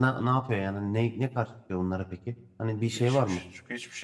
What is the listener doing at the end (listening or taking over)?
taking over